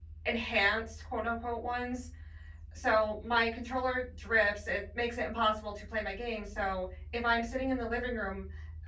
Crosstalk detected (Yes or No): No